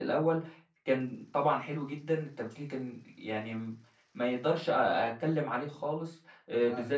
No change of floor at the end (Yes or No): Yes